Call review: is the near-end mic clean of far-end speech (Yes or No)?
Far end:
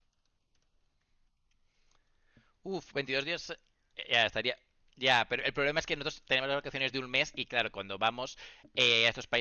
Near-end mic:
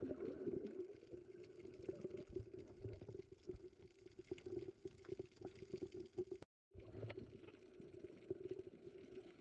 Yes